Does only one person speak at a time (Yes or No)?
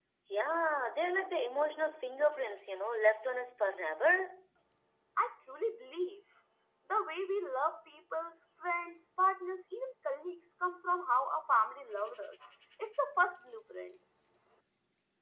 Yes